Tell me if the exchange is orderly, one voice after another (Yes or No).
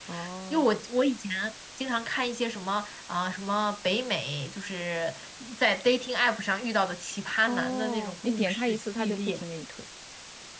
No